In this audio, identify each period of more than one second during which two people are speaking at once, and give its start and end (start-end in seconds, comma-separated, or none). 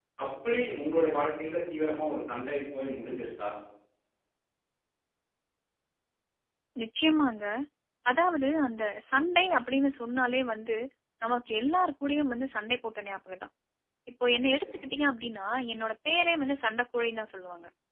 none